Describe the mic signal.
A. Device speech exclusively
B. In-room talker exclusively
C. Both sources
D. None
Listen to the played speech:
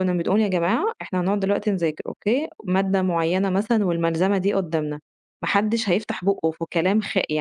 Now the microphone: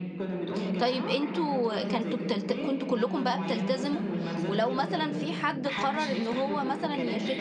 C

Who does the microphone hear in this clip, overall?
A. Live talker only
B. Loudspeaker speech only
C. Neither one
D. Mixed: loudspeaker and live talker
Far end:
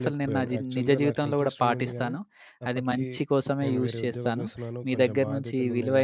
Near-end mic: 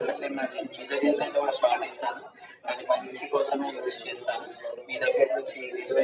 B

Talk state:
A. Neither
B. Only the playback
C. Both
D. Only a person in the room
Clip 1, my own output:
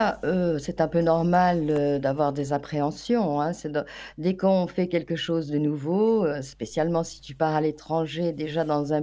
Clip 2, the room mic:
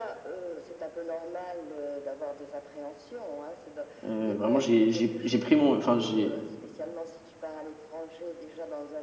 C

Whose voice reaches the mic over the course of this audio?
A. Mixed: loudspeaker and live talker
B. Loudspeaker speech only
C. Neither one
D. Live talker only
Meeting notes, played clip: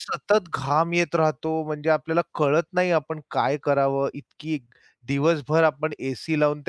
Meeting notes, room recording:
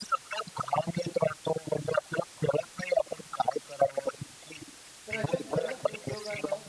A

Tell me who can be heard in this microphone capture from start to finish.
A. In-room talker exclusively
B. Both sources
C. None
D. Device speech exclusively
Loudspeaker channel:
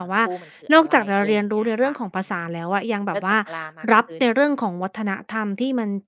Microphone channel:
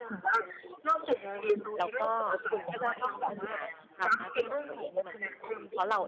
B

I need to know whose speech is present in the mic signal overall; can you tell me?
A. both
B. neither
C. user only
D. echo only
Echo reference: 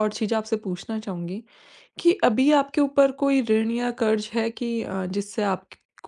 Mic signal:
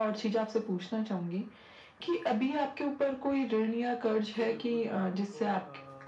A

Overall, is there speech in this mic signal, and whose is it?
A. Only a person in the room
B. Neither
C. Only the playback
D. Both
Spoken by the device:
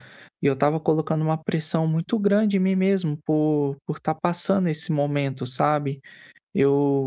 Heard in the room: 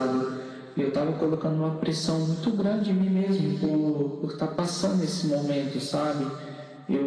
C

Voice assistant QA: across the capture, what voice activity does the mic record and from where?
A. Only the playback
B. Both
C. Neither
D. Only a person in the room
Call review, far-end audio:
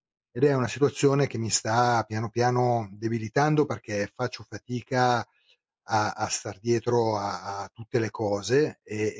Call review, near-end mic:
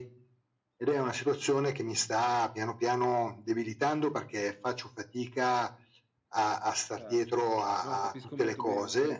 B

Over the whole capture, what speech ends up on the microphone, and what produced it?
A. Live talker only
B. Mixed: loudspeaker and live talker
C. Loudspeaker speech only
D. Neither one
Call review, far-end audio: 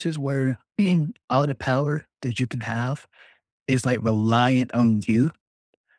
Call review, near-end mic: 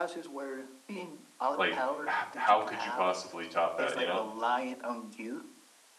B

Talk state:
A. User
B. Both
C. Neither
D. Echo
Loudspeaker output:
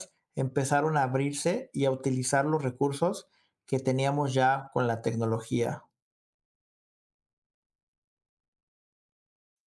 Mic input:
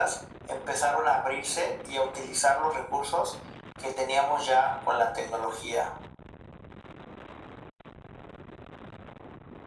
D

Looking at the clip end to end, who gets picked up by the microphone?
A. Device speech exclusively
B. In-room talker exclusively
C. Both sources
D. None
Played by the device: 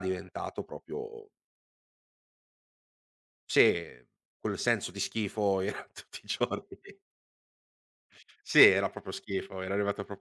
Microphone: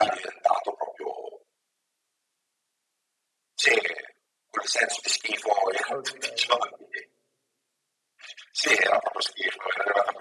C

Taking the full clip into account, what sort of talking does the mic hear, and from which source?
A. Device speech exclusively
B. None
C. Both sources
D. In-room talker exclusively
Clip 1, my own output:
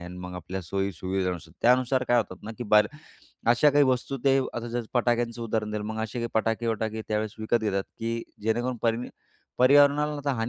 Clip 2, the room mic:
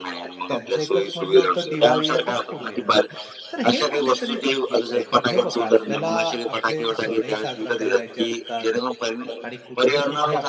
C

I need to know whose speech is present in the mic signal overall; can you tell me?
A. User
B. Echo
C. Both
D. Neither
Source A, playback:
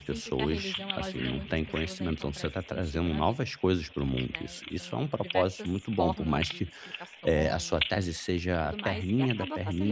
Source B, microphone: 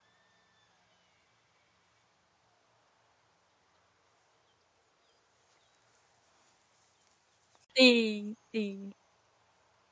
A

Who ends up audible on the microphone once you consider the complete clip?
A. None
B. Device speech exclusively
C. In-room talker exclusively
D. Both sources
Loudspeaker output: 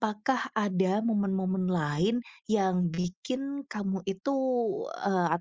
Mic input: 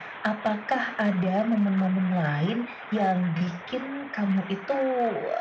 B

